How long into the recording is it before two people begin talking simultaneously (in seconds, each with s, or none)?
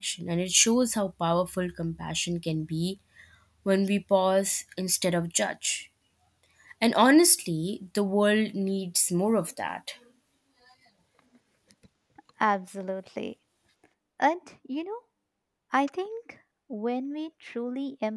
none